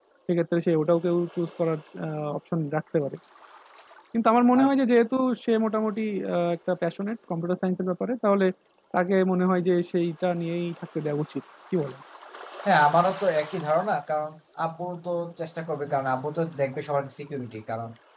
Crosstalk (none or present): none